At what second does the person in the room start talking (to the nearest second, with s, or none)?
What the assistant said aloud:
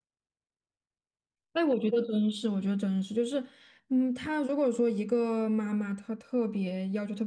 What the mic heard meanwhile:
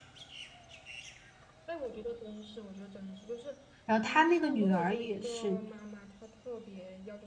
4 s